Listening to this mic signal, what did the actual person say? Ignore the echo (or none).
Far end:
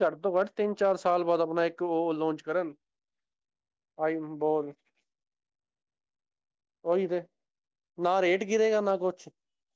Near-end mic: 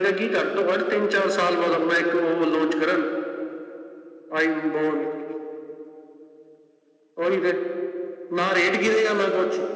none